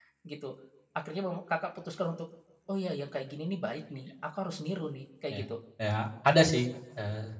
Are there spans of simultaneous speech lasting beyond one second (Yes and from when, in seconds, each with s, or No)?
No